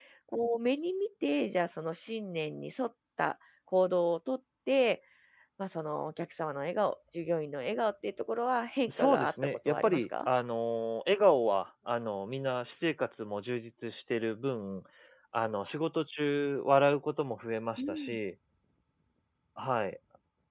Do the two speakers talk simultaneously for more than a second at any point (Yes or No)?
Yes